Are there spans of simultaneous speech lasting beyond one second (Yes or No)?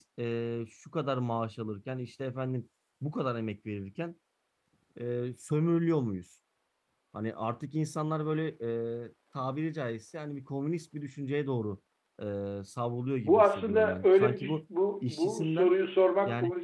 Yes